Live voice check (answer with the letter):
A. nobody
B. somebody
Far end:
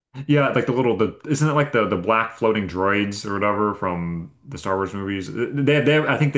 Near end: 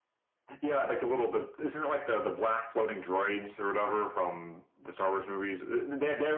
A